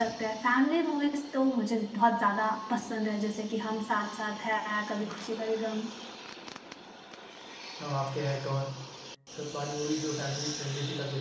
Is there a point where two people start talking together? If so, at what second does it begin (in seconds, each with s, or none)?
none